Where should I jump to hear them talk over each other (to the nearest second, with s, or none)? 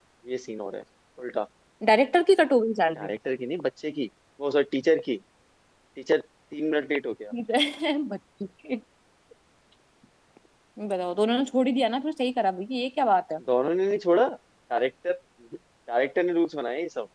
none